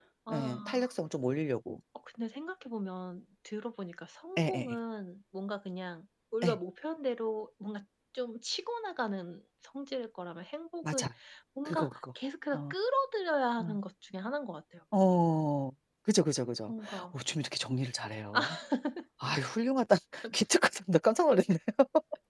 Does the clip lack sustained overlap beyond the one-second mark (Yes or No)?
Yes